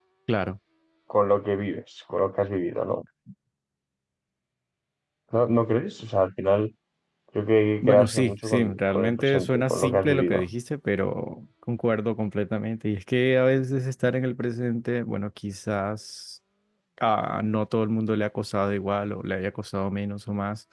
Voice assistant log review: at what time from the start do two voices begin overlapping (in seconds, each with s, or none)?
7.8 s